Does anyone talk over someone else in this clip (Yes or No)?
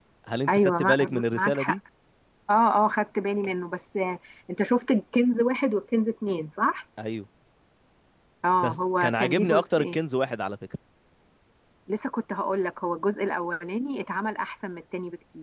Yes